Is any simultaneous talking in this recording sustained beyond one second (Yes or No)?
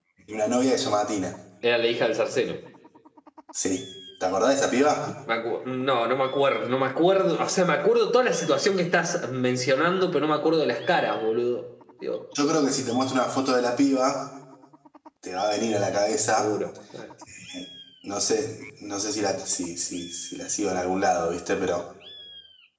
No